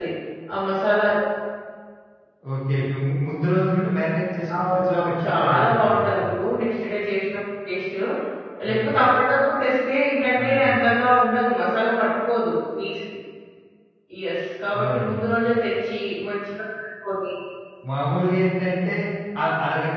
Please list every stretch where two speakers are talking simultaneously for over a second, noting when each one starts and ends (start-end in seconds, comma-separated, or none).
4.6-6.3